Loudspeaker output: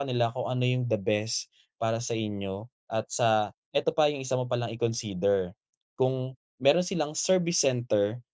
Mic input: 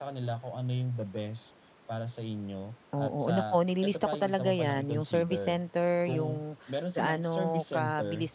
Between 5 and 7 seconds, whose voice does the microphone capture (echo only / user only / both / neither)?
both